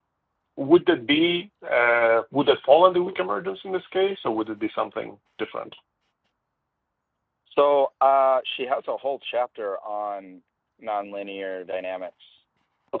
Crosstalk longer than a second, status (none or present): none